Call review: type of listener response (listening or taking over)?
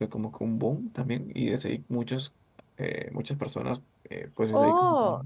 taking over